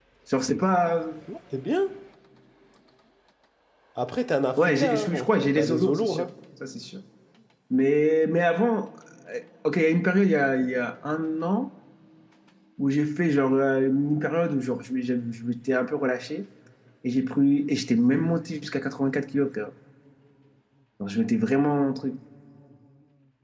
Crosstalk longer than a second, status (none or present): present